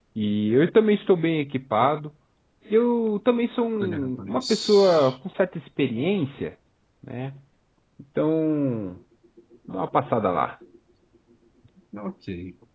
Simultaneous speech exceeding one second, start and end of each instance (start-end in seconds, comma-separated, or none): 3.8-5.1